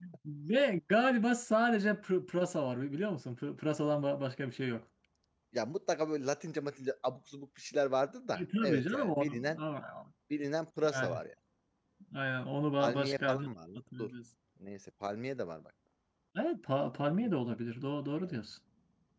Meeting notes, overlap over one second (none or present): present